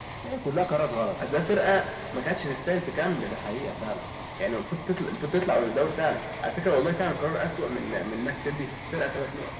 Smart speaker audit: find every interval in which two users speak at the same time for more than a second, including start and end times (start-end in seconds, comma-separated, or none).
none